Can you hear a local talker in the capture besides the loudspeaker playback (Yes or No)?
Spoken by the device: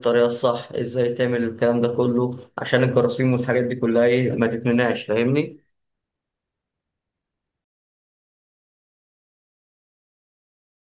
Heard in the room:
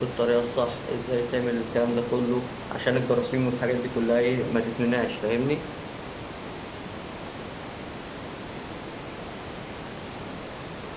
No